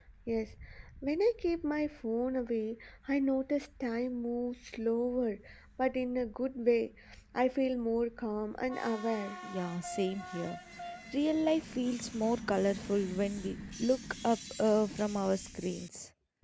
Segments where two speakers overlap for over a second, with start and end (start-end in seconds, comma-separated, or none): none